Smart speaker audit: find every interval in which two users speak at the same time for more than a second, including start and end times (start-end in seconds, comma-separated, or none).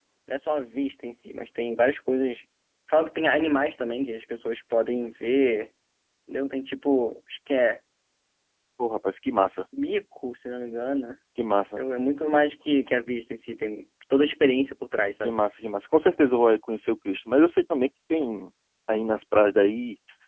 none